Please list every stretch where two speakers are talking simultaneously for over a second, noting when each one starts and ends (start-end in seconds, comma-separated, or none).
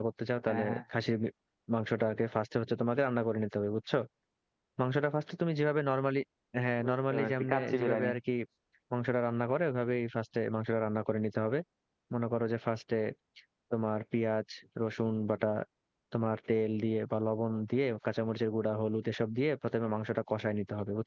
6.8-8.1